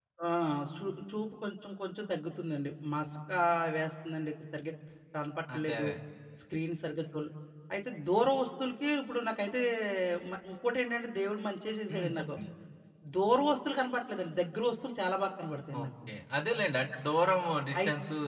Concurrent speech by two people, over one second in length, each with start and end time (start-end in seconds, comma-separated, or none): none